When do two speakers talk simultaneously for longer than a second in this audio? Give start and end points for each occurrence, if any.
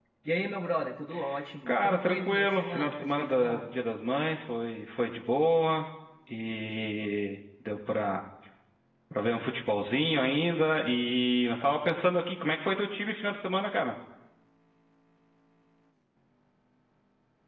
1.7-3.6

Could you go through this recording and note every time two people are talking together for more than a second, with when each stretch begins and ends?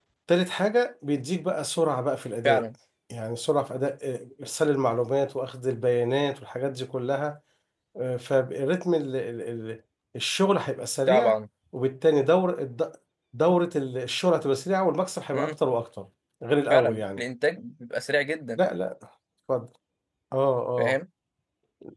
none

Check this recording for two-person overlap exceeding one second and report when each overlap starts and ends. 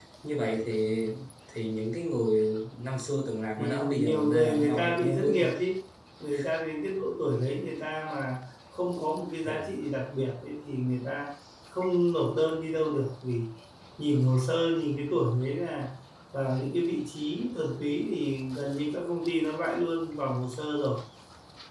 3.6-5.5

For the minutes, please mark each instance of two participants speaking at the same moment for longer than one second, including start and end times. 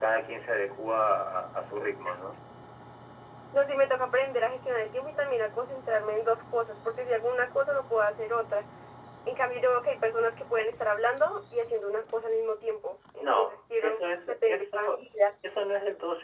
13.2-15.0

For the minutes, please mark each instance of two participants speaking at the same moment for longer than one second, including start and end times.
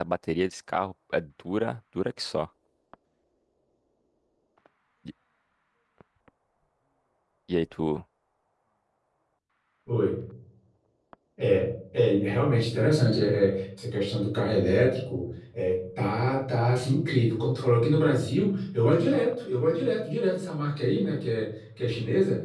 none

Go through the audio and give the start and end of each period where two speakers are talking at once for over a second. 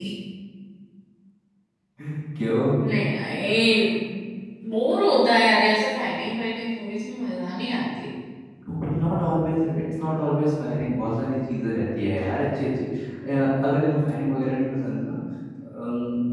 none

